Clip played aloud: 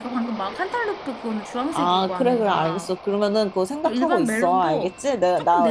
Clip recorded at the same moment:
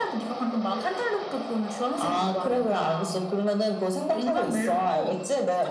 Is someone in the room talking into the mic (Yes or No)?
No